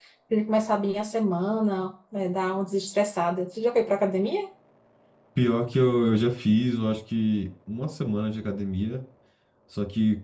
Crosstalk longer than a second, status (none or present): none